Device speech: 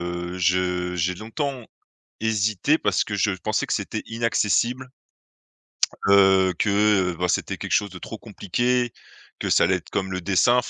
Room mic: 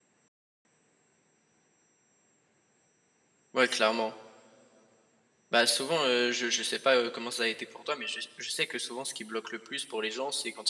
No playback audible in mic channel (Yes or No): Yes